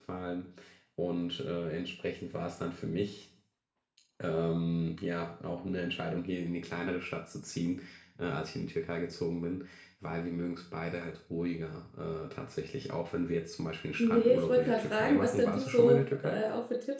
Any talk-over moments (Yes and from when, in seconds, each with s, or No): Yes, from 14.0 s